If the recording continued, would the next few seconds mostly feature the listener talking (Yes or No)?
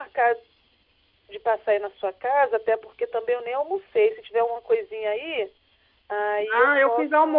Yes